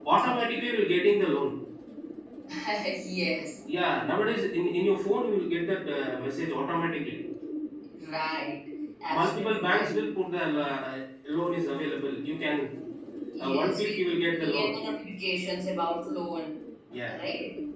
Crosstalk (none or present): present